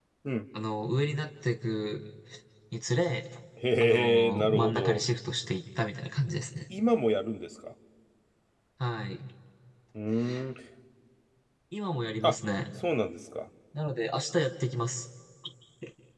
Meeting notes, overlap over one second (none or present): present